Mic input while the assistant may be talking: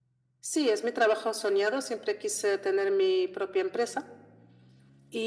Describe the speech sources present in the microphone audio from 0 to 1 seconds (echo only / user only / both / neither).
echo only